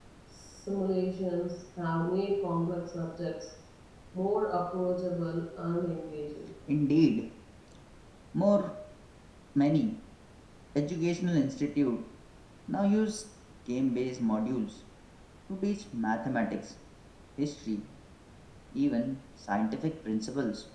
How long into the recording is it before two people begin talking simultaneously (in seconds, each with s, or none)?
none